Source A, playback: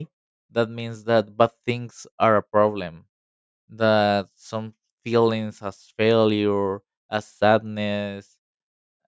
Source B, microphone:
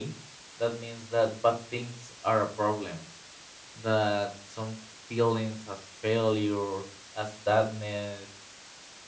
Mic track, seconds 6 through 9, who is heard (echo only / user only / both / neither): echo only